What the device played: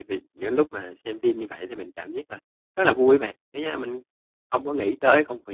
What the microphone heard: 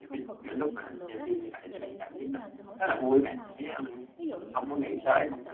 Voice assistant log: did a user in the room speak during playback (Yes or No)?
Yes